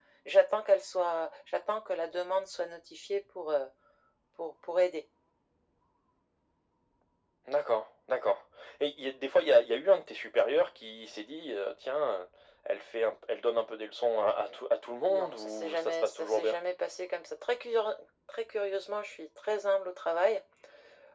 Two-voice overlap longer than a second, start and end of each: 15.1-16.6

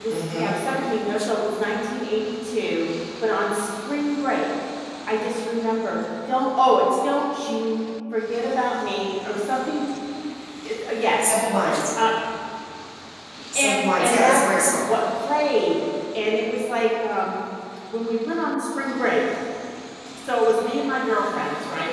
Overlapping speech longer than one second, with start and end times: 13.6-14.9

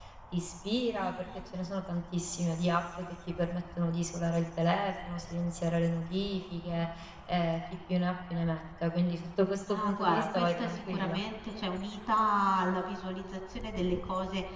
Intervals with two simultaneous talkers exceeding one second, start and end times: 9.7-11.2

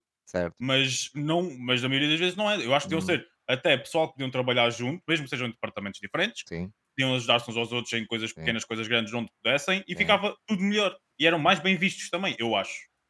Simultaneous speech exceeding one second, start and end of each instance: none

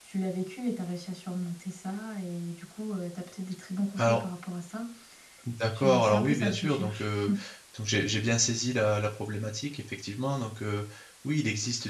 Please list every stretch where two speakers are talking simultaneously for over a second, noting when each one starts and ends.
5.7-7.1

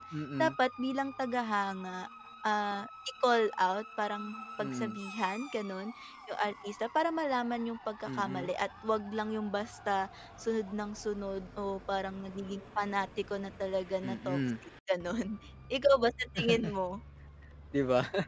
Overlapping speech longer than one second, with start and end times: none

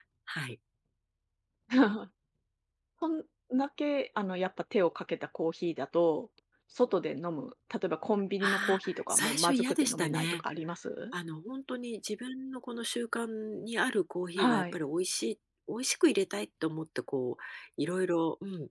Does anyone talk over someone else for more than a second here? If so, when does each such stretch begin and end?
8.4-10.4

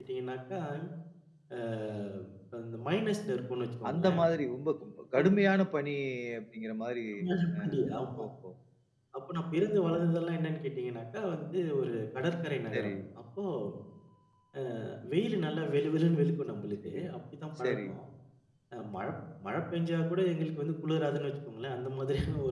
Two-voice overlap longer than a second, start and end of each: none

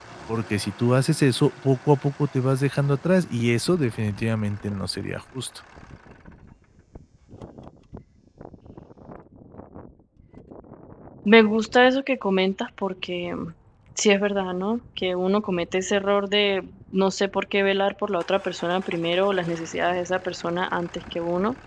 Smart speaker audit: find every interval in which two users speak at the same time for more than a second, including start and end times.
none

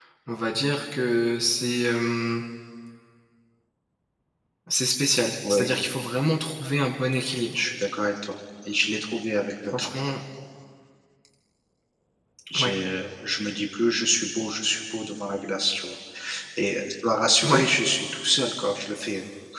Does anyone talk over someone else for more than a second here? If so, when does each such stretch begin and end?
none

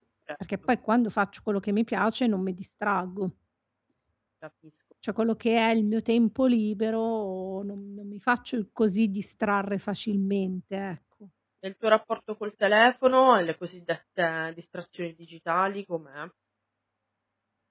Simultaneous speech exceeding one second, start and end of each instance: none

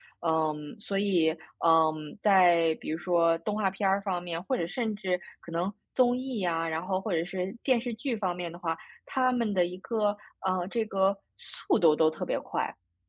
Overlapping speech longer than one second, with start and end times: none

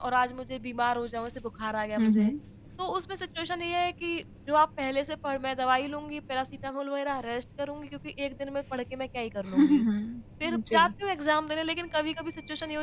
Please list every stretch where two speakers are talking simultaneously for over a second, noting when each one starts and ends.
none

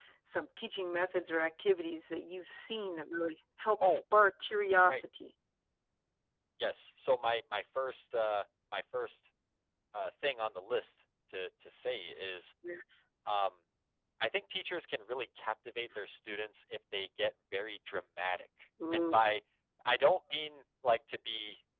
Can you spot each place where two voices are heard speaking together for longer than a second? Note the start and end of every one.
none

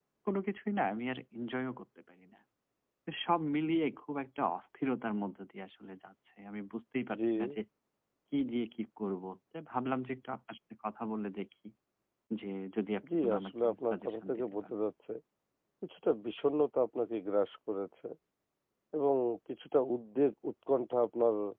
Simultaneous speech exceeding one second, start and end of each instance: 13.1-14.8

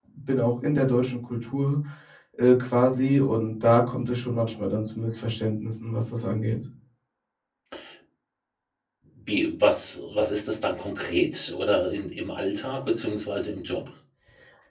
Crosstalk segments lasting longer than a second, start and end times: none

